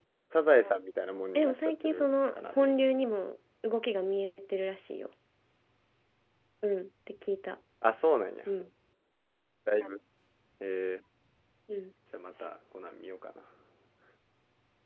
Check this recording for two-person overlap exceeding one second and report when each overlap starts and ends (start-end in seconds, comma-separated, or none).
1.4-2.7